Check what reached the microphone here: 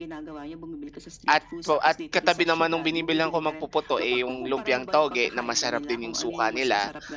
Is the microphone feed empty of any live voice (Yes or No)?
No